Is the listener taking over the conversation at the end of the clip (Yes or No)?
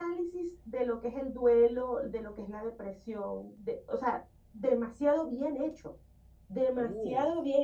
No